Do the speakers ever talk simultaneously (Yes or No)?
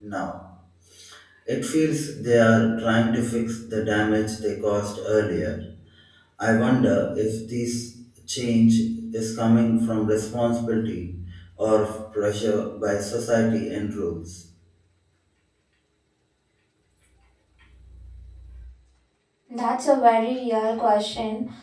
No